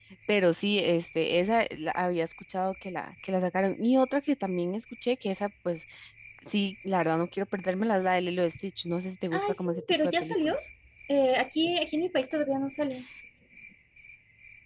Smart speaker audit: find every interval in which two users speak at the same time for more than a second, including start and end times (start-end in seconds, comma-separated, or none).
9.3-10.6